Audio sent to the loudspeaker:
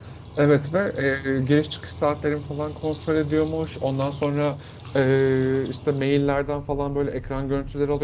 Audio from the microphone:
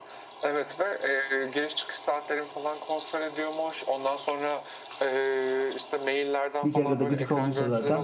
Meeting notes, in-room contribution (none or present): present